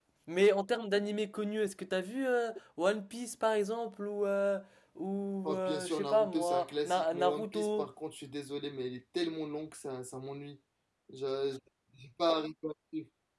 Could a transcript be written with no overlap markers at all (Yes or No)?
No